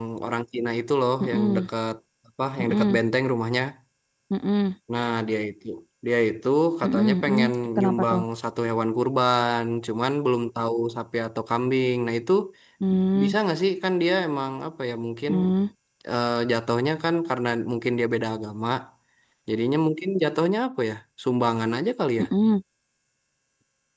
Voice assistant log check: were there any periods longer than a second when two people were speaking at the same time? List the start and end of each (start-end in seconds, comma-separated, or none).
6.8-8.2